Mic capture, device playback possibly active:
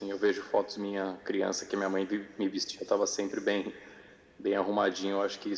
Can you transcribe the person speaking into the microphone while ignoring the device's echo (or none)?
none